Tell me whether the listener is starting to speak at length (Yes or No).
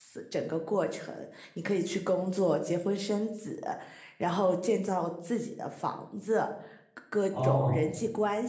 No